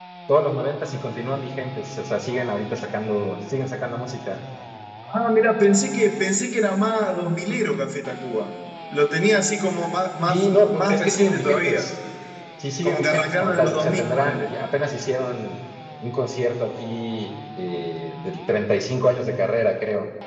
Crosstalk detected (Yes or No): Yes